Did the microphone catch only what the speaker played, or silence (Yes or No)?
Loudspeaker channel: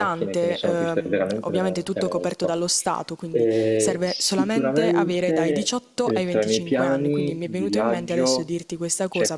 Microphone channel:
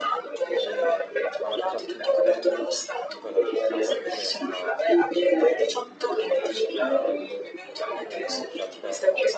No